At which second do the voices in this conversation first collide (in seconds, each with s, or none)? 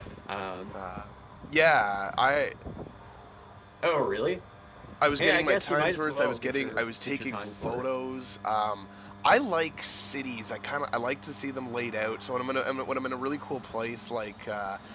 5.2 s